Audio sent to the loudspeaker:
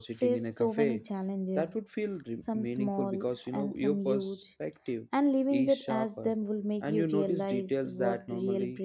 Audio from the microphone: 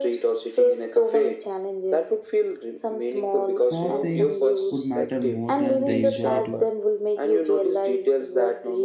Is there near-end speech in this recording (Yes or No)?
Yes